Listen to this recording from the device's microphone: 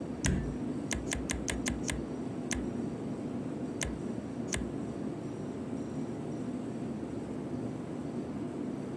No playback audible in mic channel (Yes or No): Yes